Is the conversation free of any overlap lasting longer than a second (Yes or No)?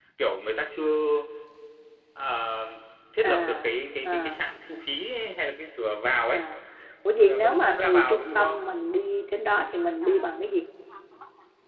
No